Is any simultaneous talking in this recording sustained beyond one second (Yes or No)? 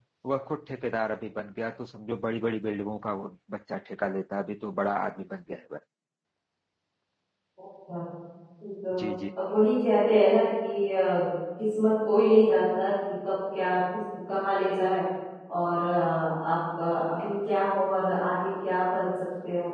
No